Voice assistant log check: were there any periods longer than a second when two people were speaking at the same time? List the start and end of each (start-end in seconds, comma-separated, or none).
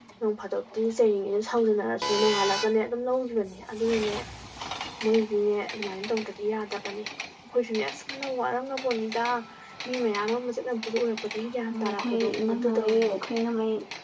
11.7-13.1